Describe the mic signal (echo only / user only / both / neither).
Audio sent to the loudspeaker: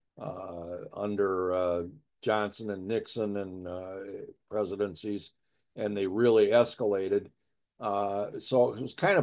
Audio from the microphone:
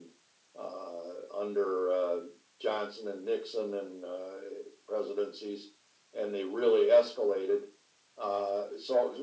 echo only